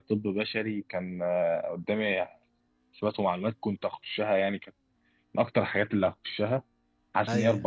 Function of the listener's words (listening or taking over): listening